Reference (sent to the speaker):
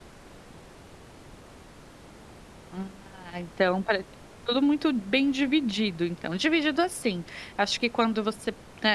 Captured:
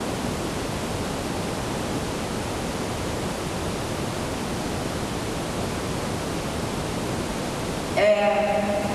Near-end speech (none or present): present